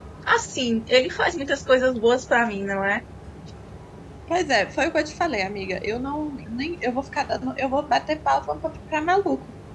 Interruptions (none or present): none